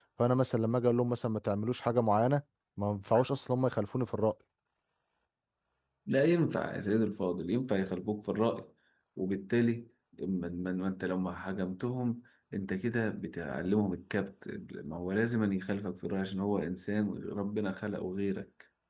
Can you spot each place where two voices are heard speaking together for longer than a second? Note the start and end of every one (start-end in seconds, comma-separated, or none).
none